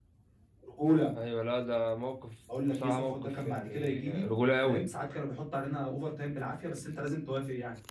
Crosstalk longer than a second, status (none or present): present